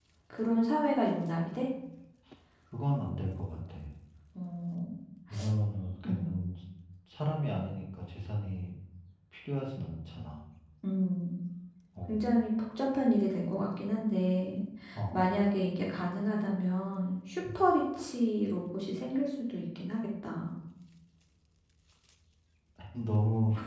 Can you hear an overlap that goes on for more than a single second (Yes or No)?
No